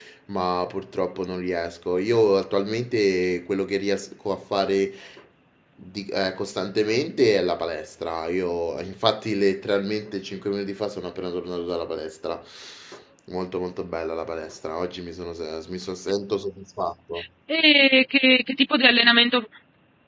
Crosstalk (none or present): none